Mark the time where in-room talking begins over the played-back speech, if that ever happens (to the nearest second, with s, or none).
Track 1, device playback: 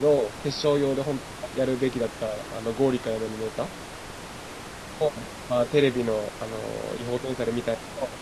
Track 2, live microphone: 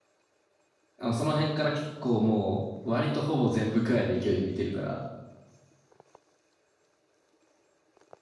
1 s